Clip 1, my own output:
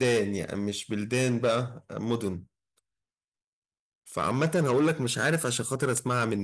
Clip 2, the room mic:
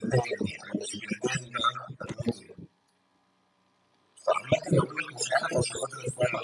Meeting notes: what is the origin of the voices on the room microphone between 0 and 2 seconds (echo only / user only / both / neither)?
echo only